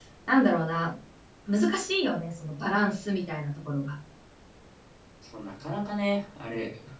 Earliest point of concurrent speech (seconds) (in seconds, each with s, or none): none